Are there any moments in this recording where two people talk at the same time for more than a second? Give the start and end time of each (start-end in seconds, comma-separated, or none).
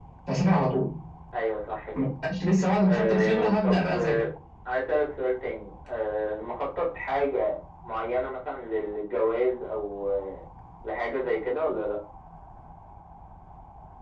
2.8-4.2